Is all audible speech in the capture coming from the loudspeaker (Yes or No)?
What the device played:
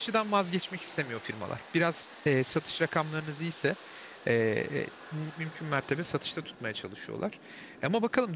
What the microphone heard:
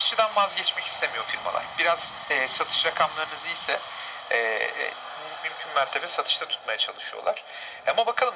Yes